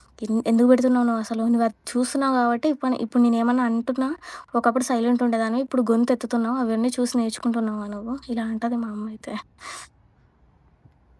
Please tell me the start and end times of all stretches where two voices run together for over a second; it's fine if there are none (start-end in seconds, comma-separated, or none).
none